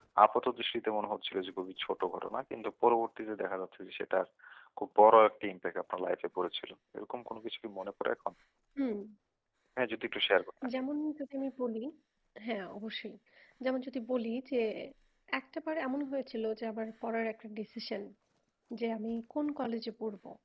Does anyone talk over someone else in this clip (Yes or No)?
No